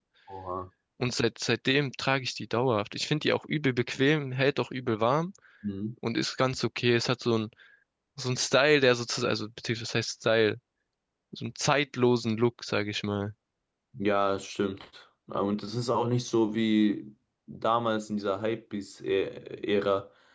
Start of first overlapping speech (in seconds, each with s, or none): none